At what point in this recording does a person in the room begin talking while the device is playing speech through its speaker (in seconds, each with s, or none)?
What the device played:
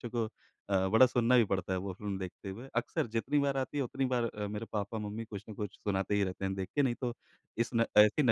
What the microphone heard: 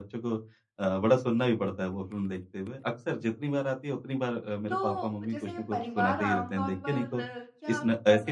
4.7 s